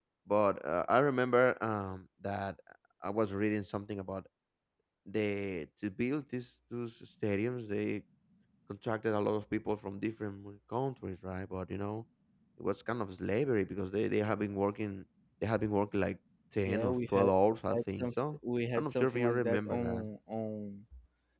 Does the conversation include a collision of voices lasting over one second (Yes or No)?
Yes